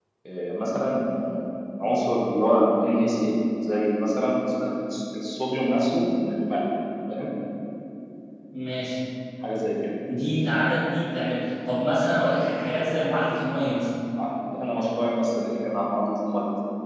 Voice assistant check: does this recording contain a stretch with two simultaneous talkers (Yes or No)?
No